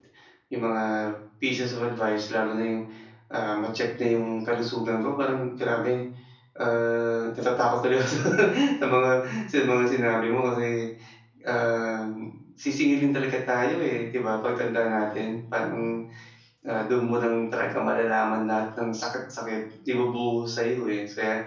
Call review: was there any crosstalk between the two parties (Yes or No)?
No